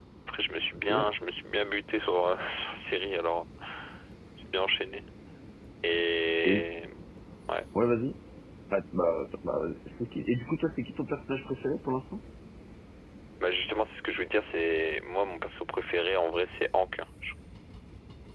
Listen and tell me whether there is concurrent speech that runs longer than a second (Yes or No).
No